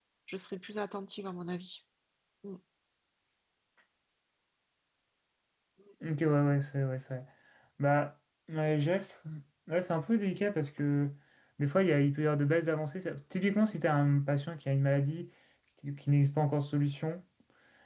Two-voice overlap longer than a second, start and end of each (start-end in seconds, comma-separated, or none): none